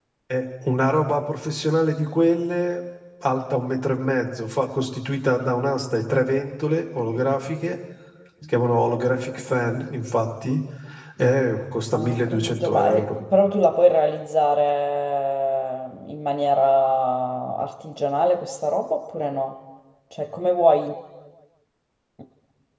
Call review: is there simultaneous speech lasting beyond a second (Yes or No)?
Yes